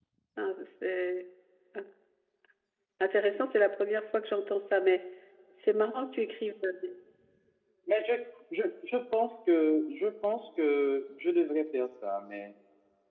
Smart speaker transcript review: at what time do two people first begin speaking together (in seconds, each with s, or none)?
none